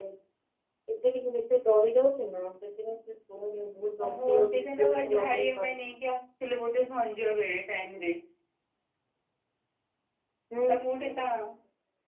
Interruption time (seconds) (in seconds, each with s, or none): 4.2 s